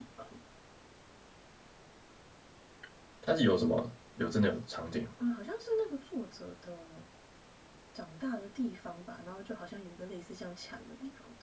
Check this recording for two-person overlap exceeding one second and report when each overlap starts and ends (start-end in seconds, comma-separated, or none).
none